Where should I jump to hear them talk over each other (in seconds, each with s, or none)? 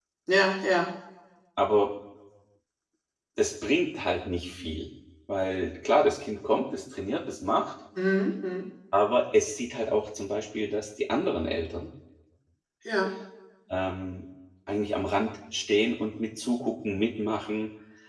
none